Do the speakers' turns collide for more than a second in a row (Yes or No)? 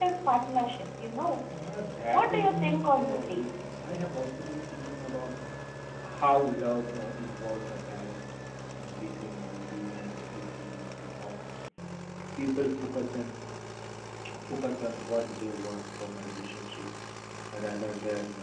Yes